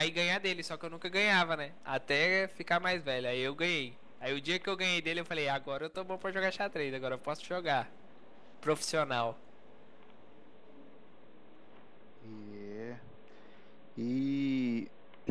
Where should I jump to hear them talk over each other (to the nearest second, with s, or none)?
none